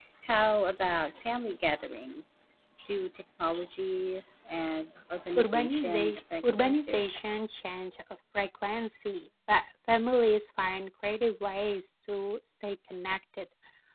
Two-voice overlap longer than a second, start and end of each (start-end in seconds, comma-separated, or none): 5.4-7.0